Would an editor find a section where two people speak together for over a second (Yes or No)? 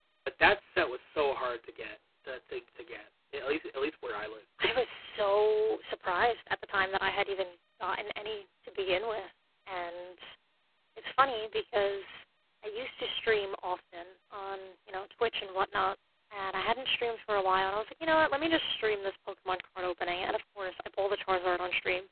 No